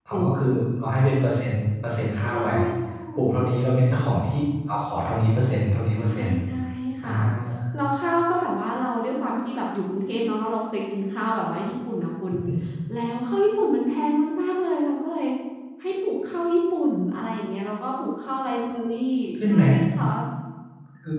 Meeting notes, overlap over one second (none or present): none